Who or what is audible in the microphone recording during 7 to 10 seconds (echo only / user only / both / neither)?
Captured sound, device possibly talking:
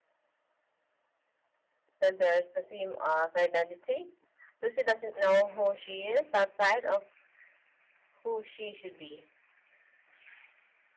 user only